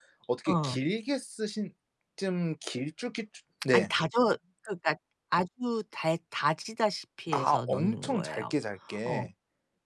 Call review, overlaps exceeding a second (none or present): present